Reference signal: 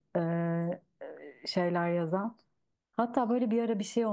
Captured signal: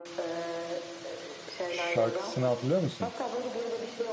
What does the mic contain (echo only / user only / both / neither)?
both